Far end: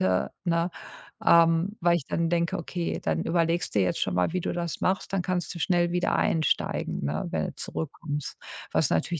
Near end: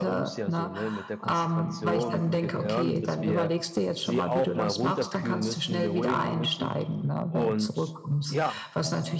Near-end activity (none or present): present